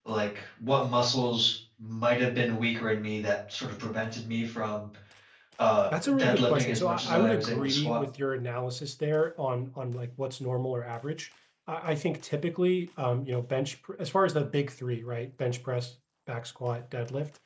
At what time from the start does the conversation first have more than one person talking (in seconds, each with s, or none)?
5.9 s